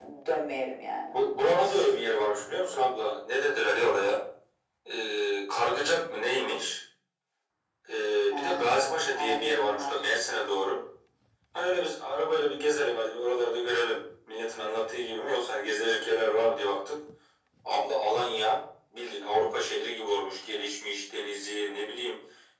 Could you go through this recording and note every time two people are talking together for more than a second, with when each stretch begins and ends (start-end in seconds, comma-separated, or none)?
8.3-9.9